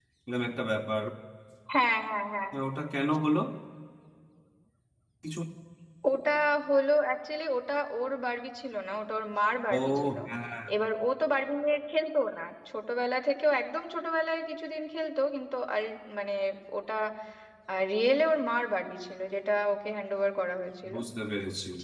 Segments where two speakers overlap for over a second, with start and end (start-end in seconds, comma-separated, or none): none